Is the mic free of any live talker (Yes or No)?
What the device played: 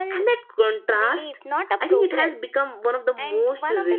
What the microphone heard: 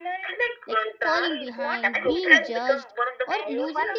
No